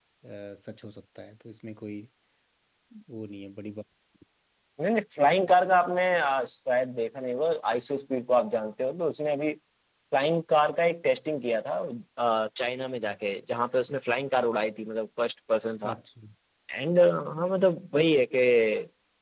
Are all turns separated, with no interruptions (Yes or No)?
Yes